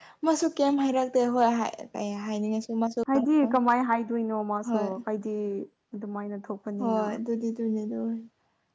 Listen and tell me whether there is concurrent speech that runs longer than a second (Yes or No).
No